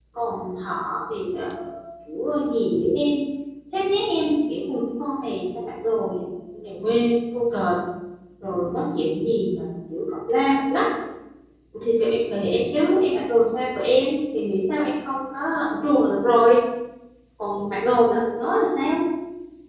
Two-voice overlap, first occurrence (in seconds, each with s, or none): none